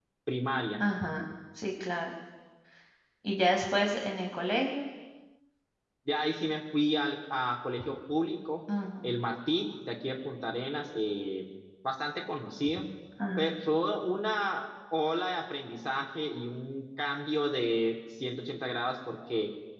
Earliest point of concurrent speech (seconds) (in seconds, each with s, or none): none